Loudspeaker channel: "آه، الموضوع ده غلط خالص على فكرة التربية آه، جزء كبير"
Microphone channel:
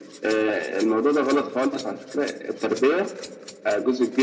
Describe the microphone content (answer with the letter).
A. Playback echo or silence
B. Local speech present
A